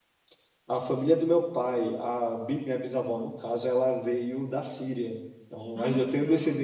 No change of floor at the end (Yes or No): Yes